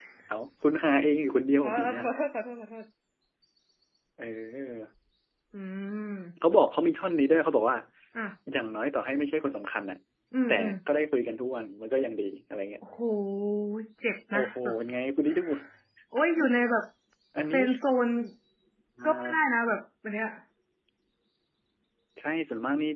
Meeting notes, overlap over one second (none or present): none